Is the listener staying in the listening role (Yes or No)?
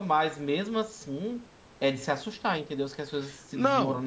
No